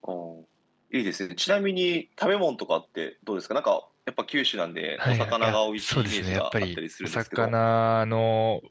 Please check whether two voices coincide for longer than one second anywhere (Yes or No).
Yes